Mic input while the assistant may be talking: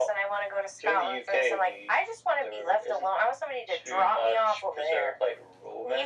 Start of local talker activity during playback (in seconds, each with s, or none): none